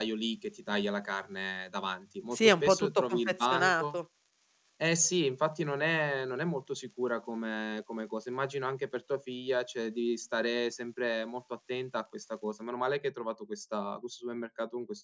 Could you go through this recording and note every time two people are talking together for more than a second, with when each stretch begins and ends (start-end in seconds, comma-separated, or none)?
2.3-4.0